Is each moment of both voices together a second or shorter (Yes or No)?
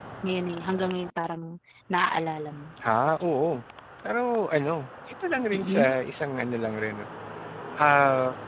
Yes